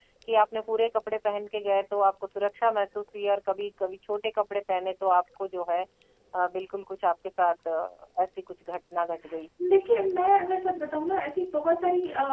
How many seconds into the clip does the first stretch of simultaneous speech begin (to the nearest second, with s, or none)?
none